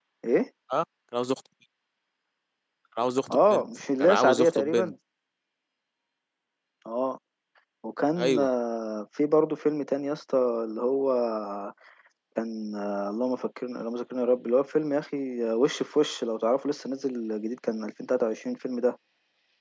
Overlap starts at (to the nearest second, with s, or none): 3 s